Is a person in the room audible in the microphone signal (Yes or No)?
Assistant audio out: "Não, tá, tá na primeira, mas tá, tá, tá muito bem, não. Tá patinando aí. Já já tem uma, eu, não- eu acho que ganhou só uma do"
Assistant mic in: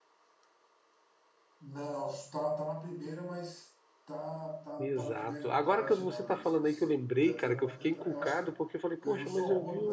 Yes